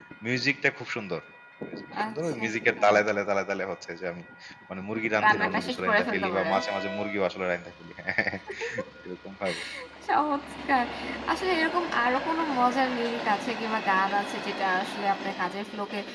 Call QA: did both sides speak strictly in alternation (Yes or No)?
No